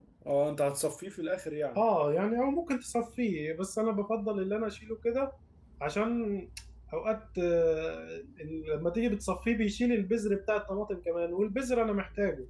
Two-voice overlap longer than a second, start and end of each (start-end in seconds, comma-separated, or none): none